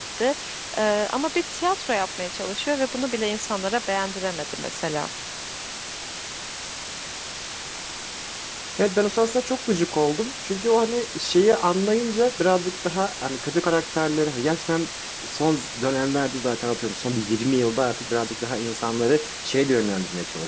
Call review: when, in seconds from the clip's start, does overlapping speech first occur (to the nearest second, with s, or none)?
none